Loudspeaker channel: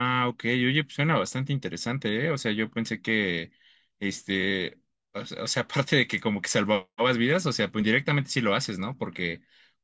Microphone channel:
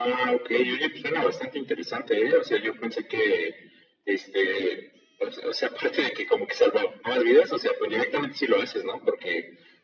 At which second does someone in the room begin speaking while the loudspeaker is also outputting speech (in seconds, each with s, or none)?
none